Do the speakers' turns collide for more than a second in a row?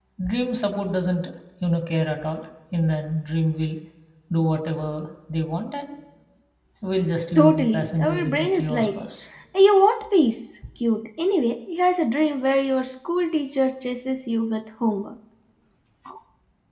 Yes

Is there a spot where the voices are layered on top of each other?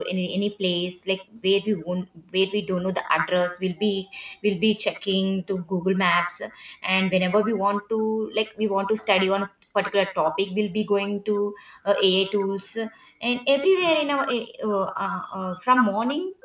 No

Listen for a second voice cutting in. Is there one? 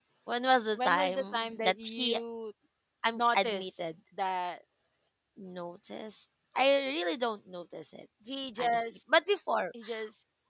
Yes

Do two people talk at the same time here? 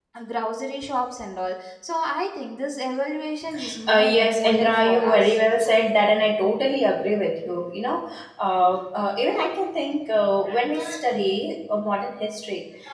Yes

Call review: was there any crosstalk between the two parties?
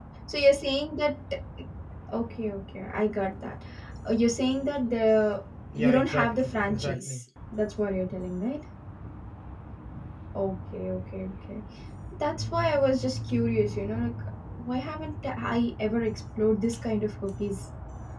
Yes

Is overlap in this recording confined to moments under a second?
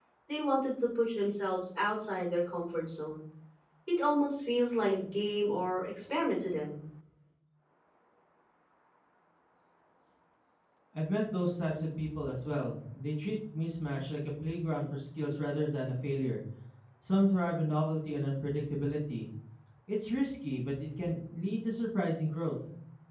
Yes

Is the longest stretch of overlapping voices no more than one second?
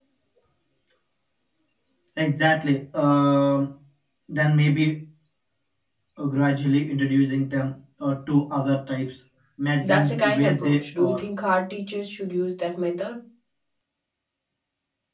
No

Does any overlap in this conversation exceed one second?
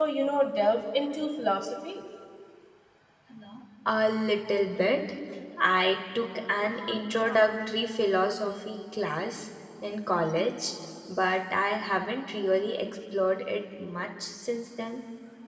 No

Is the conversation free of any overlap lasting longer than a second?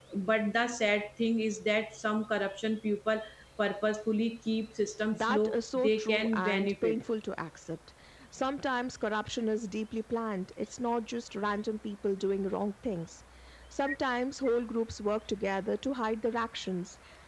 No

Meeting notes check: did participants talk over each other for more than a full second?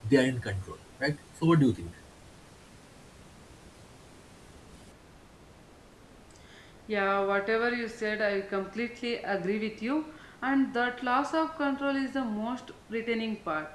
No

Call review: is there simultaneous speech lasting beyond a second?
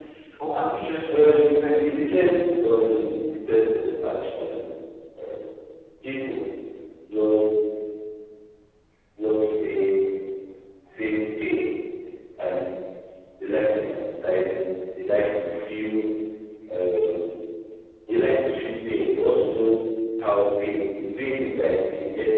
Yes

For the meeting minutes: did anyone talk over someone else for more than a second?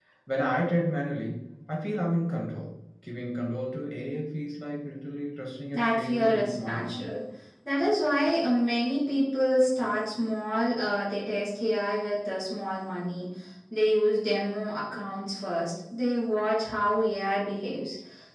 Yes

